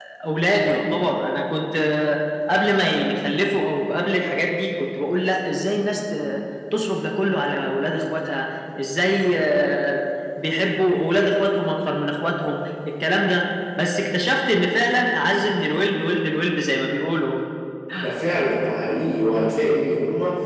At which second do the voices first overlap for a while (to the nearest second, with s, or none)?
none